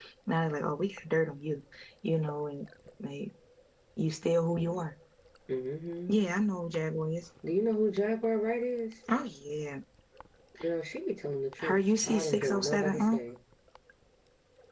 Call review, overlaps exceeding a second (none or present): present